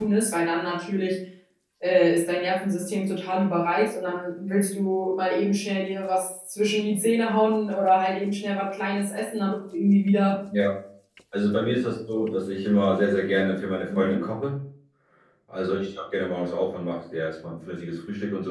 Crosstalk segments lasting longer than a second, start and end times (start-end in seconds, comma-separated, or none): none